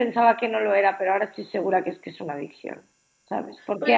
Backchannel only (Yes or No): Yes